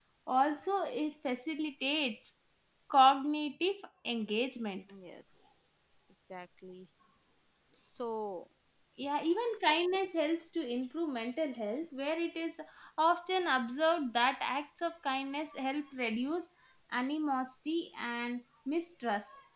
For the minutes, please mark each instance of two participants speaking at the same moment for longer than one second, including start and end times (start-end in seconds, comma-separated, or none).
none